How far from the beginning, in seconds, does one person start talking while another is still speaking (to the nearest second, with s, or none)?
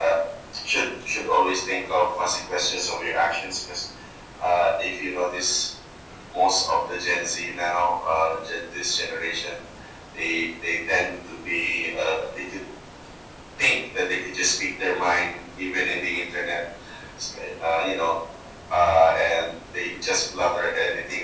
none